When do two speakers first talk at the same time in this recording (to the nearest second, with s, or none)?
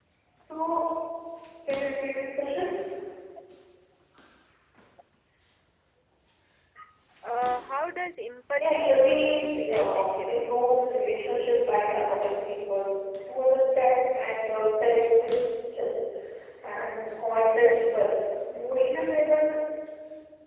9 s